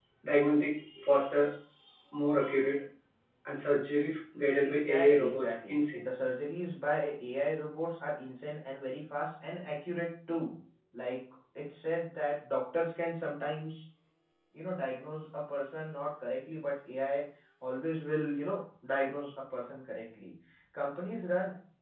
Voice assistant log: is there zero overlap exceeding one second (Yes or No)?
No